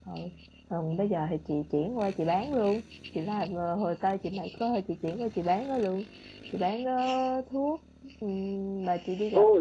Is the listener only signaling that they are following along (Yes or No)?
No